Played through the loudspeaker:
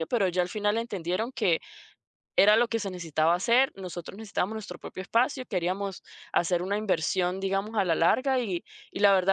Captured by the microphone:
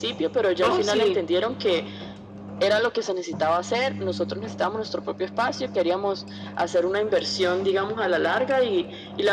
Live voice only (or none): Oh, sí,